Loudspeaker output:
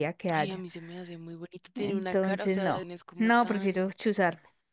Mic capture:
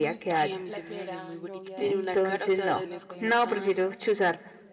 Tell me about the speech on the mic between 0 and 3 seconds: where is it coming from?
both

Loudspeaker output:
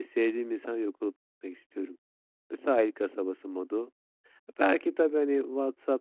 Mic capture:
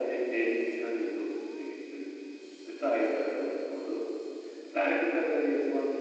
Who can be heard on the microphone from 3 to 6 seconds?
echo only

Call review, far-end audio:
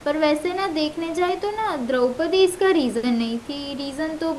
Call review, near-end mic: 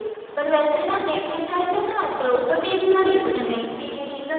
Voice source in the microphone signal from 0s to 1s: echo only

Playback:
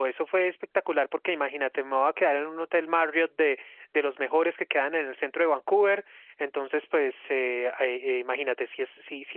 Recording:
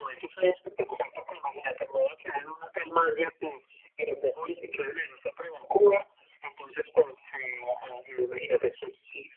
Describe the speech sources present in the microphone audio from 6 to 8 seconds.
echo only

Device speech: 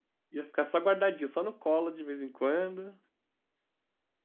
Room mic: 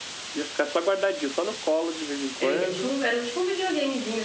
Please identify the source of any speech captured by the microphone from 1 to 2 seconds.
echo only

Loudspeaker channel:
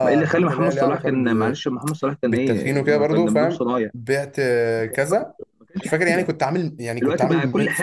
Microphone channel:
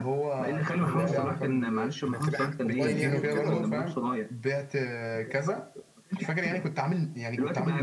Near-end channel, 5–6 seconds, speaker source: echo only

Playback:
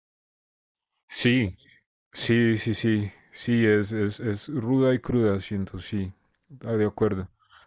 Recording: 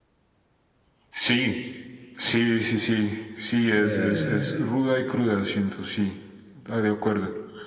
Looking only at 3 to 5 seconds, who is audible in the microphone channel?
both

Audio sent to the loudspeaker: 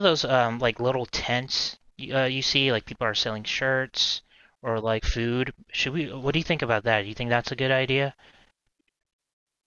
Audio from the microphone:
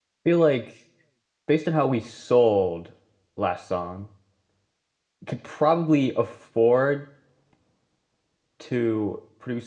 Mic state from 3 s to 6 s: user only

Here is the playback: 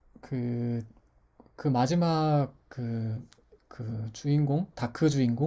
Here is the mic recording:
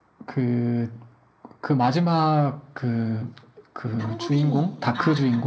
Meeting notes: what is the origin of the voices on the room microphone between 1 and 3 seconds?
echo only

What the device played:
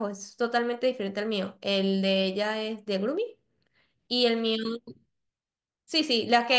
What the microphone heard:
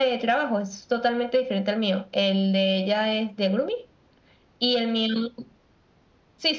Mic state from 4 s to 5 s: echo only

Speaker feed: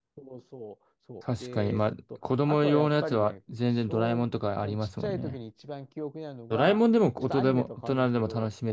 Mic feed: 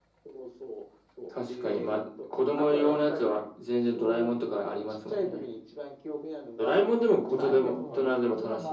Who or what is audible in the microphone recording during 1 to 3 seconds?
echo only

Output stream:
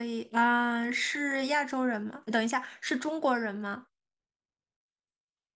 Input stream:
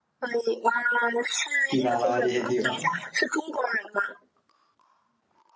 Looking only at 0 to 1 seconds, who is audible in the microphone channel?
echo only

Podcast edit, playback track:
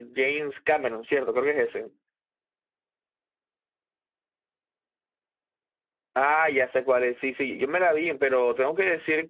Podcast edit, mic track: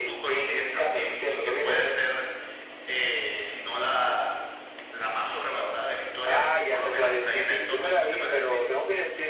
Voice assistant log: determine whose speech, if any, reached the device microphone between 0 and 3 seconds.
both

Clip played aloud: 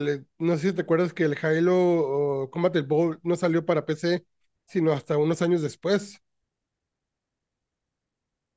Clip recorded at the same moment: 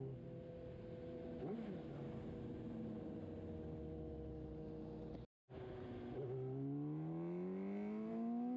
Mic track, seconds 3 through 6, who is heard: neither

